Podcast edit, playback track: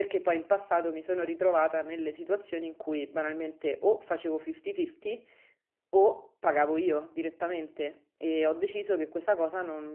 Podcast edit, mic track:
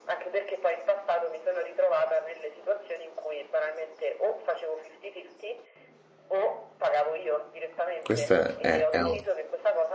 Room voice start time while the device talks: 8 s

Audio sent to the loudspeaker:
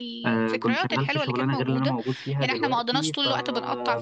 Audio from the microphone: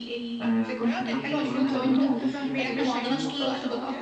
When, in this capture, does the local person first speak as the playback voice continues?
1 s

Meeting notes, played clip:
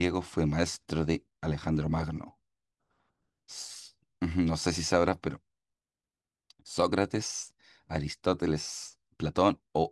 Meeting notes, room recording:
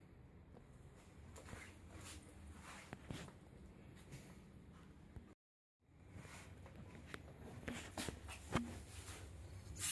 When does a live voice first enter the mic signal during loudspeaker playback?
none

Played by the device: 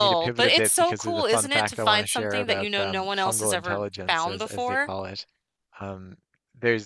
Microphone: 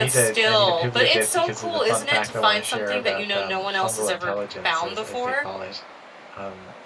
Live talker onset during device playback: none

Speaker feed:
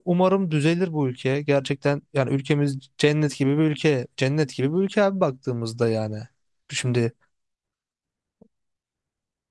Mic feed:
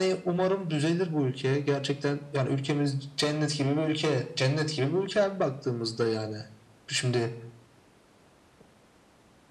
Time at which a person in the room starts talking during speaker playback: none

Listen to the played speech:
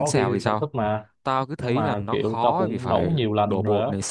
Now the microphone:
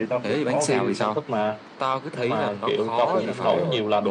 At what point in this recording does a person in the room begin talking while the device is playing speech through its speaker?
3 s

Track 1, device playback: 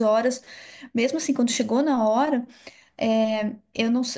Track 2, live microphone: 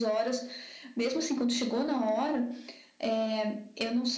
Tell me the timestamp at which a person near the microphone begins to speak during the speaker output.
none

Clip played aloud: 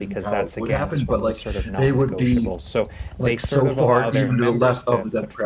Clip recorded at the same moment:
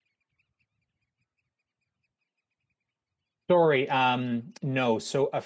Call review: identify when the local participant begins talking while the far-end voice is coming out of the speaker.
4 s

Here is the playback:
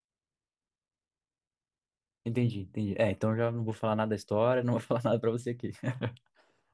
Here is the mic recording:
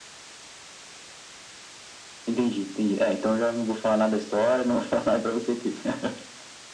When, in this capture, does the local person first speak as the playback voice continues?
none

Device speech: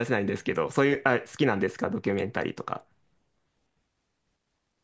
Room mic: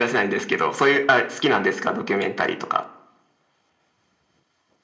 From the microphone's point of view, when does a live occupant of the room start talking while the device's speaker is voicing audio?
none

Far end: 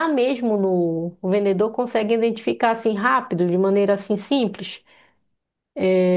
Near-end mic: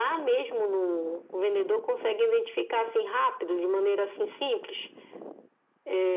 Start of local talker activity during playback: none

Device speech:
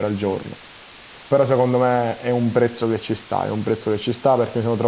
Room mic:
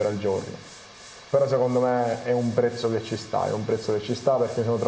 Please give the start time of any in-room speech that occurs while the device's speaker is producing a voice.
none

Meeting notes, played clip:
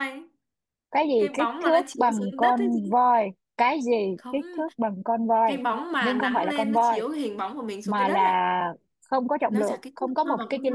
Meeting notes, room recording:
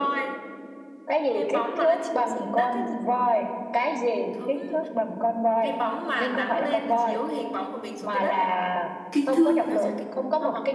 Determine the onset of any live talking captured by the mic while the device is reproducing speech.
9 s

